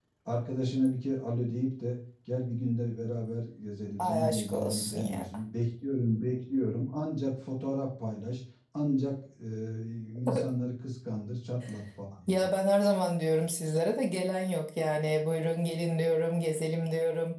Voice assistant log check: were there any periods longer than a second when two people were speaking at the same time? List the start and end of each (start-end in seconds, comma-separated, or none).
4.0-5.2